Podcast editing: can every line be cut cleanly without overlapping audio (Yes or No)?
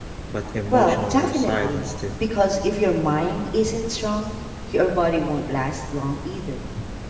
No